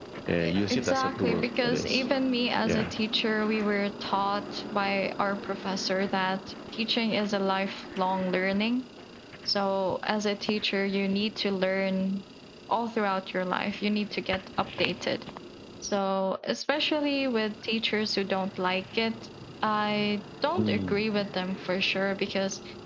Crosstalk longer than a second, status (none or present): present